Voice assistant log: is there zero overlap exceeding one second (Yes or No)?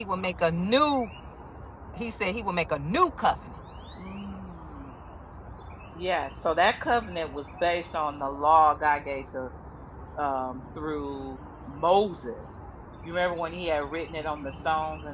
Yes